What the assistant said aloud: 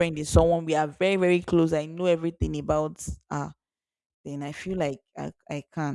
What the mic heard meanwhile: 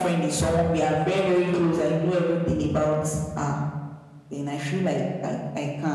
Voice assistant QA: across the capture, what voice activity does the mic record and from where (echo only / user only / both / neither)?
echo only